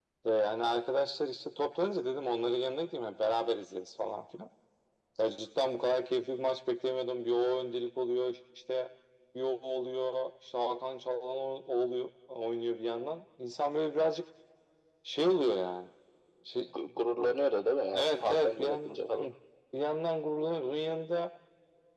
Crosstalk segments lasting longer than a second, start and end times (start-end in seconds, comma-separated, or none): 18.0-19.3